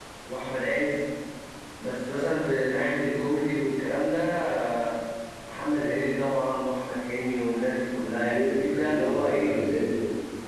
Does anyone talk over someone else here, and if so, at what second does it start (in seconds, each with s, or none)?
8.1 s